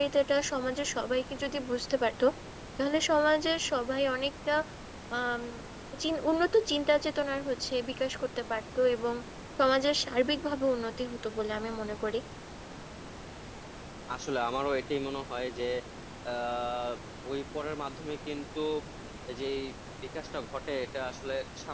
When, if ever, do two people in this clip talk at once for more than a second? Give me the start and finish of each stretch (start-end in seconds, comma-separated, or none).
none